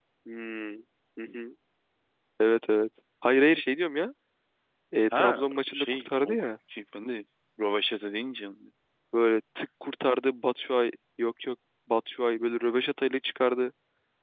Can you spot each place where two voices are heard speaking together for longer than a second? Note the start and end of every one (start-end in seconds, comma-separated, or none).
5.1-6.4